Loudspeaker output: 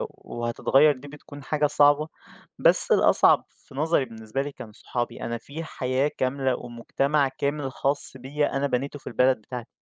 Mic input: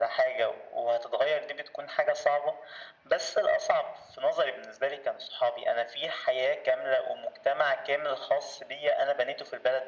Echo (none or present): present